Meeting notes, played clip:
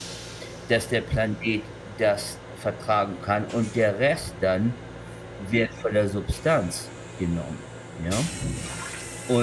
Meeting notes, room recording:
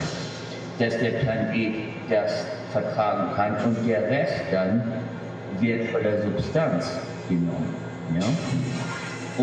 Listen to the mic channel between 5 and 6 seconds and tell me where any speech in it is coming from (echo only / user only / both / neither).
echo only